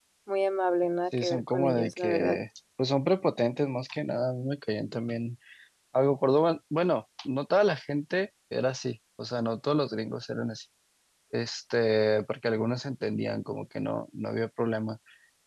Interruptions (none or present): present